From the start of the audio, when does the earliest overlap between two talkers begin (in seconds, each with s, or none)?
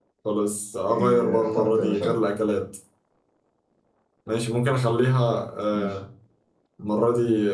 0.9 s